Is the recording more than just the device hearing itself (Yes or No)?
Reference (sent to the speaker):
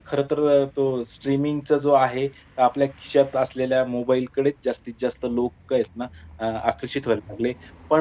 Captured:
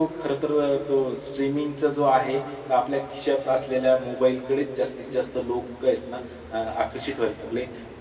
No